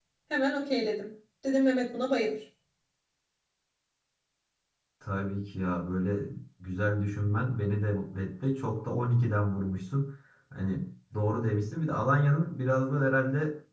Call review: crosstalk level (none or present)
none